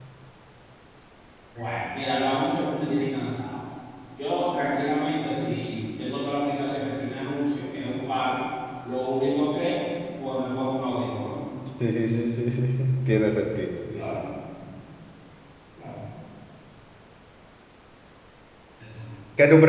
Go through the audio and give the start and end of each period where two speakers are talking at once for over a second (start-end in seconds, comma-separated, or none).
none